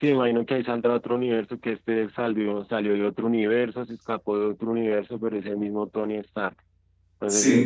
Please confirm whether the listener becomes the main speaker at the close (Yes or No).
No